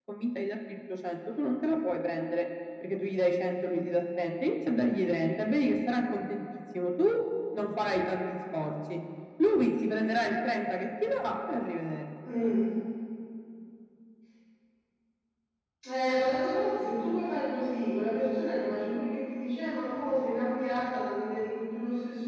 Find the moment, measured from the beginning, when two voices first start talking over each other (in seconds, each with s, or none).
none